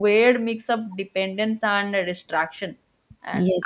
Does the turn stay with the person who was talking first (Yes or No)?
Yes